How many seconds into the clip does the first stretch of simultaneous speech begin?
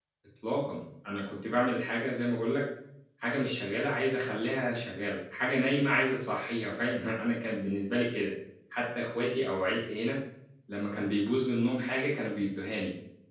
none

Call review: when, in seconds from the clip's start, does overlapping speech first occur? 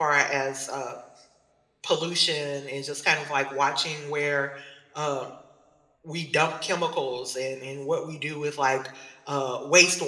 none

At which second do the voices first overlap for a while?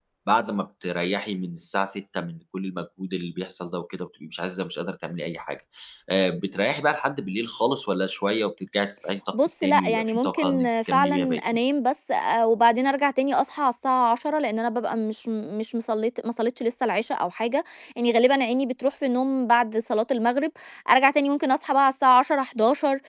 9 s

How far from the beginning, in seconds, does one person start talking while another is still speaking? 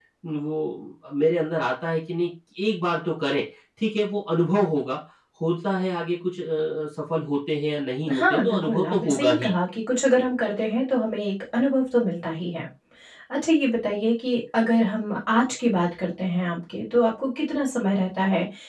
8 s

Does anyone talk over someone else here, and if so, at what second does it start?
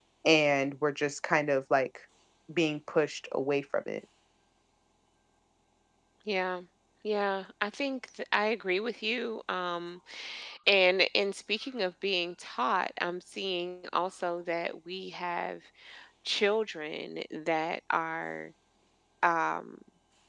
none

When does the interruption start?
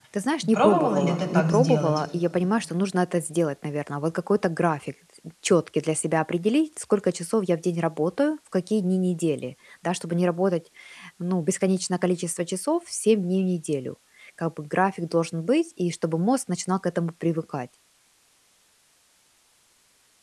1 s

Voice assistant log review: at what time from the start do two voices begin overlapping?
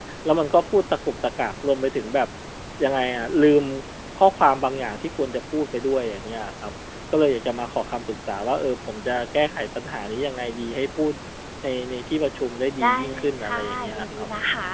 13 s

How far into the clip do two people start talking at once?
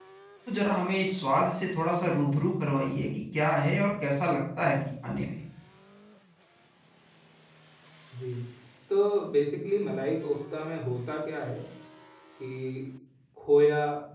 none

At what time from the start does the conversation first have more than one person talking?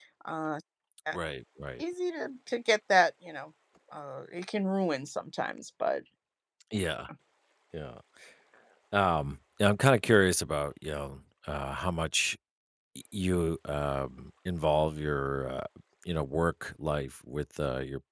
none

